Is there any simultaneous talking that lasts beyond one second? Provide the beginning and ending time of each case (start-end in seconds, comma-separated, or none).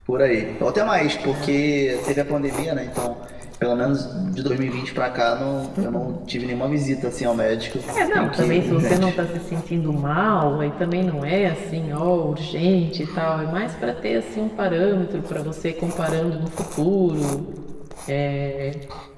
8.0-9.2